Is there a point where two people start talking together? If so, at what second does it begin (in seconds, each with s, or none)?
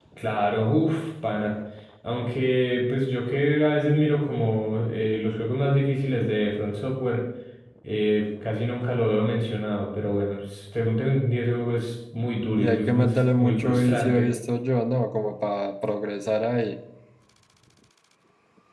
12.6 s